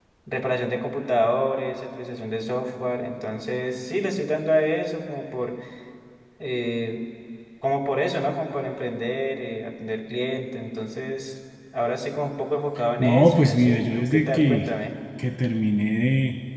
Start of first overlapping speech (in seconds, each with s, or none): 13.0 s